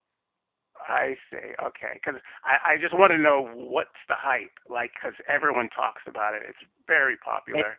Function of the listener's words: taking over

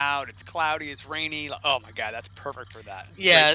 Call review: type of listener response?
taking over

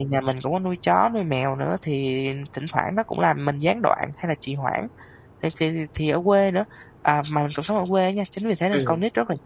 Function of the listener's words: listening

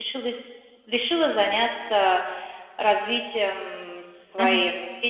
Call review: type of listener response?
listening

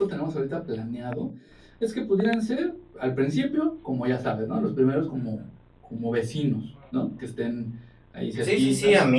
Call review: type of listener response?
taking over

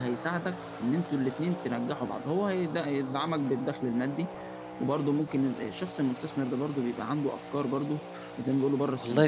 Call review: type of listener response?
taking over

